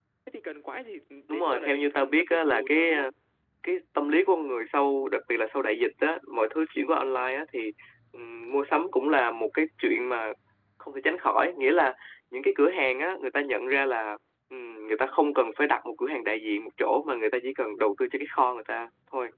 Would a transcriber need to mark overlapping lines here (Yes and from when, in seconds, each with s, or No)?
Yes, from 1.3 s